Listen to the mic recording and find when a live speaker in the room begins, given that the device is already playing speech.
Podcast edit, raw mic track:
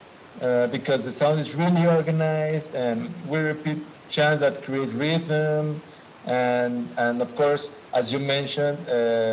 none

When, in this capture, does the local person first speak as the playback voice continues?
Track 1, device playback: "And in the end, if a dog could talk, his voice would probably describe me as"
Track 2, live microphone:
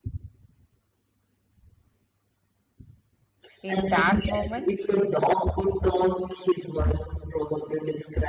3.6 s

